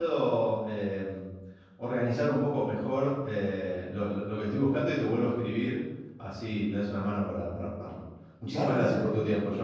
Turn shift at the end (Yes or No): Yes